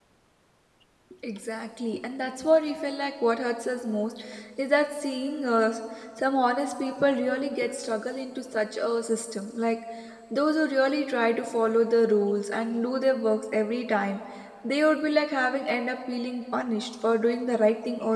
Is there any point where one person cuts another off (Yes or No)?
No